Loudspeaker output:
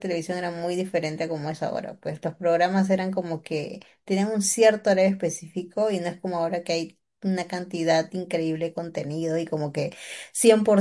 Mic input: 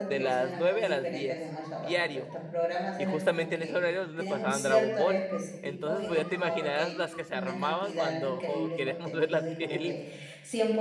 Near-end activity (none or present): present